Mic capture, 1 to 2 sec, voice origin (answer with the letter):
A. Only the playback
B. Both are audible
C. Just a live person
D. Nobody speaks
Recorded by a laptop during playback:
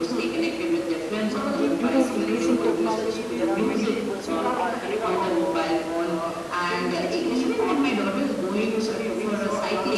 B